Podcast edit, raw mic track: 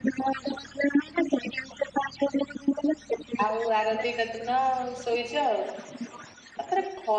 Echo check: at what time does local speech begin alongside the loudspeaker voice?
3 s

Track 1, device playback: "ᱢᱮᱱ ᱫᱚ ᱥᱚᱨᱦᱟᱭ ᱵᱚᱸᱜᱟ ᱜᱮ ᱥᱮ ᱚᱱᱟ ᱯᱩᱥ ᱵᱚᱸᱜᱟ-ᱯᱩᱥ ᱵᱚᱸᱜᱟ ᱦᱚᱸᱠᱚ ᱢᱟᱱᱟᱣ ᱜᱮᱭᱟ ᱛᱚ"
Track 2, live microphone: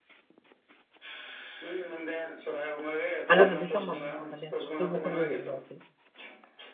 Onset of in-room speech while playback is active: 3 s

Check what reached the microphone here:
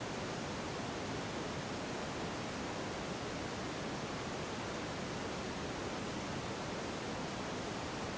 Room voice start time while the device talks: none

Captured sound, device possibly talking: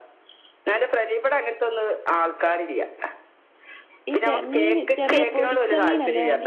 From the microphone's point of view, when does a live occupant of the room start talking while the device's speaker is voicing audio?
4 s

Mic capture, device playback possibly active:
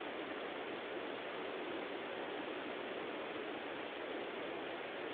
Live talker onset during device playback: none

